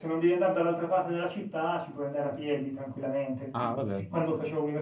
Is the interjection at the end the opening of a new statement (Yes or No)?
No